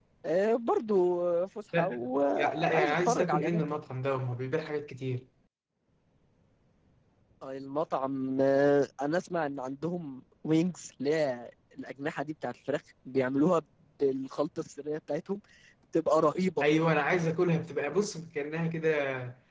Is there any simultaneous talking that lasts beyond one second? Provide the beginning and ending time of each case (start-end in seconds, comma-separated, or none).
2.4-3.6